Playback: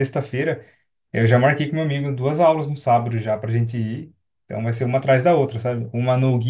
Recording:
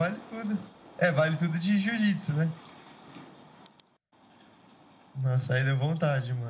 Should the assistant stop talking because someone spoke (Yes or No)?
Yes